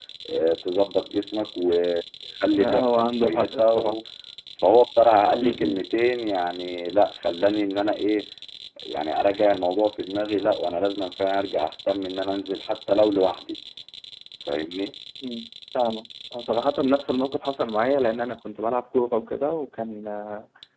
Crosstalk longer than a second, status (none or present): present